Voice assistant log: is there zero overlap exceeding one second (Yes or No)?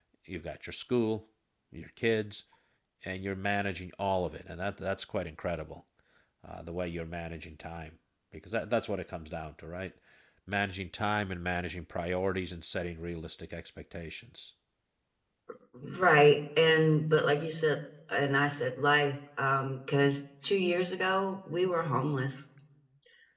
Yes